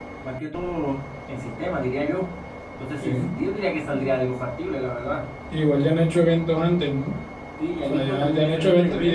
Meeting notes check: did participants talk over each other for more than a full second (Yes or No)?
Yes